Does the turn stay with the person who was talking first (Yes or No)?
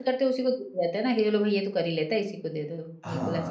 No